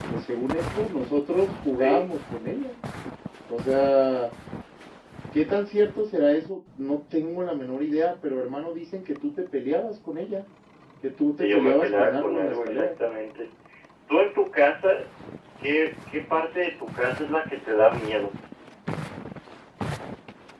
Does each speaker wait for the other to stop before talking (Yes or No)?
No